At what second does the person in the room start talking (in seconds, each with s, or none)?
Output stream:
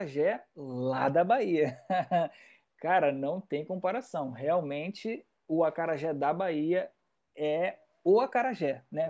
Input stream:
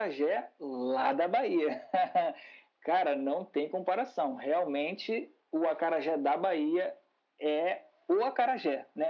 none